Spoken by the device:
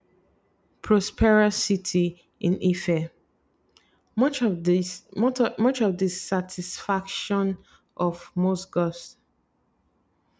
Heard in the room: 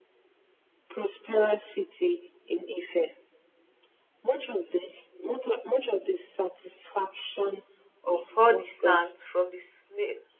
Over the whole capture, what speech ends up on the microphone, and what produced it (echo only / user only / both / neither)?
both